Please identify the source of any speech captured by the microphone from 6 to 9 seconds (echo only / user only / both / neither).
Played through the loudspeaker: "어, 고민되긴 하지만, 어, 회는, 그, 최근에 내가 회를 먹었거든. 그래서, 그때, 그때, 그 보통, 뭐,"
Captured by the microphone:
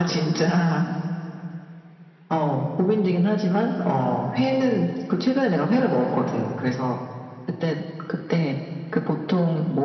echo only